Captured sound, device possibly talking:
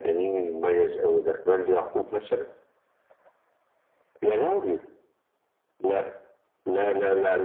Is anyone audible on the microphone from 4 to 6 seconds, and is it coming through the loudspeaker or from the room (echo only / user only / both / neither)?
echo only